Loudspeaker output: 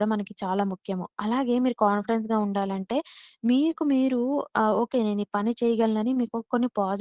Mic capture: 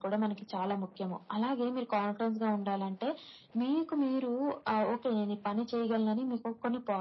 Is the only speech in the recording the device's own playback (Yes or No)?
Yes